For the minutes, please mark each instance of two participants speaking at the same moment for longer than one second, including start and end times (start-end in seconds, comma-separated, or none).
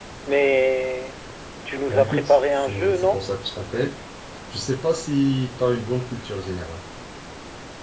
1.9-3.2